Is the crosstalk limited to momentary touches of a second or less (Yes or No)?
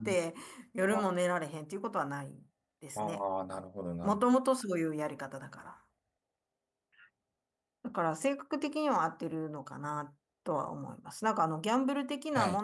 Yes